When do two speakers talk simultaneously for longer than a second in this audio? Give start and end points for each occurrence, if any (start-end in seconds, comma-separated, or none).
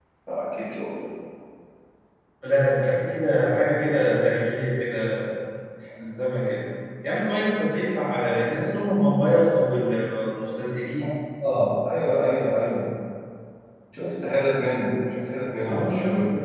none